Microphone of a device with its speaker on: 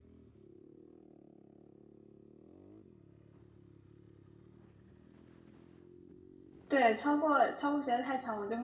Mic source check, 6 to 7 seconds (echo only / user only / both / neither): user only